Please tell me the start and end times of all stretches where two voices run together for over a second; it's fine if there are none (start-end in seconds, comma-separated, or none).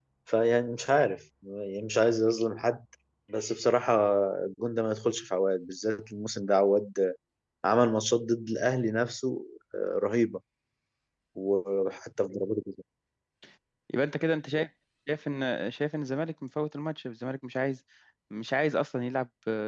none